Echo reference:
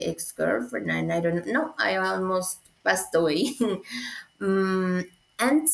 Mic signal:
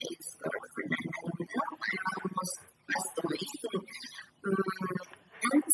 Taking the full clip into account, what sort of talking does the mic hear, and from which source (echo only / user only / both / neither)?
echo only